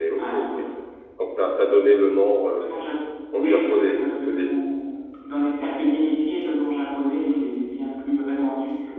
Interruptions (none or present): present